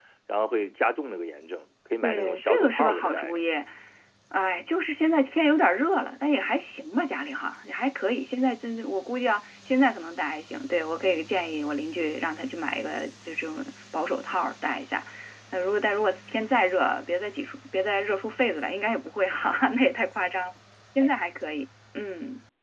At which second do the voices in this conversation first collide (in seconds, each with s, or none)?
2.0 s